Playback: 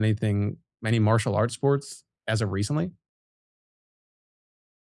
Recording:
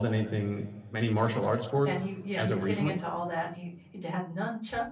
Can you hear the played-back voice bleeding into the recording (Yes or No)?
Yes